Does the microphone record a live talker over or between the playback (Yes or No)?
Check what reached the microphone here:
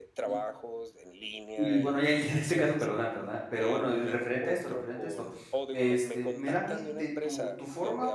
Yes